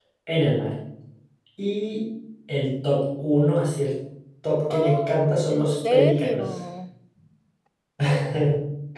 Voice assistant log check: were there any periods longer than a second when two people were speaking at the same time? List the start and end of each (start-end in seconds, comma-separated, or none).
4.7-6.5